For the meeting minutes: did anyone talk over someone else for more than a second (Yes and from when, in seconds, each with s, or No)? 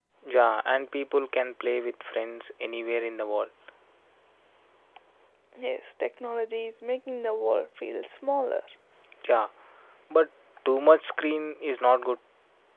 No